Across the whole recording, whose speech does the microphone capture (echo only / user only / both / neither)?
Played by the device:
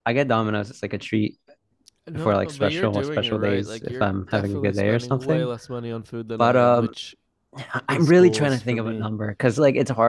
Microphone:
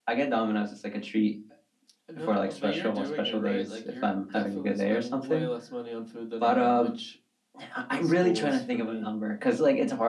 echo only